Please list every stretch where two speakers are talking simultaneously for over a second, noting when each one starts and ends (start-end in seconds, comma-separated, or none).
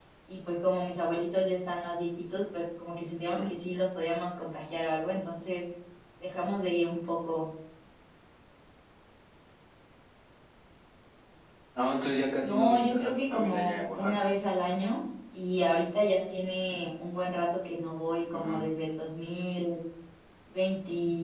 12.4-14.3